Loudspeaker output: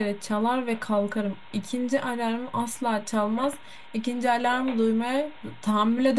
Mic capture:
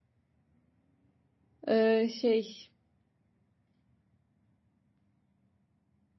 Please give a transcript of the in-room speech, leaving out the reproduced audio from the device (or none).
e, şey